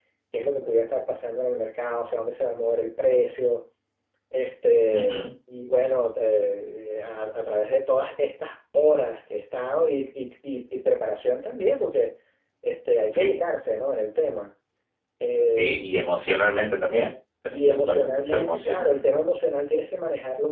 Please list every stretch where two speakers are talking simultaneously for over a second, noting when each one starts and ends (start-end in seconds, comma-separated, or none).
17.5-19.0